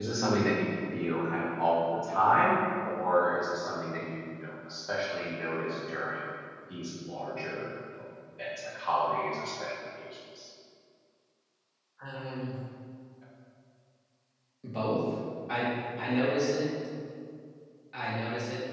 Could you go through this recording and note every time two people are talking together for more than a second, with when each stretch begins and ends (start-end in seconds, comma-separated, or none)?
none